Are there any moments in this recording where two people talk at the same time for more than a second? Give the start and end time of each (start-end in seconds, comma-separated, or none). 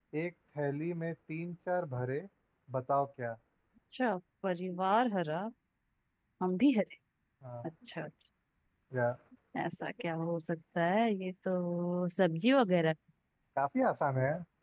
none